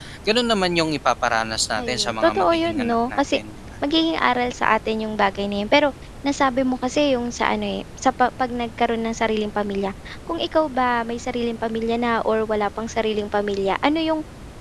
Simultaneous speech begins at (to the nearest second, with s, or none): 2 s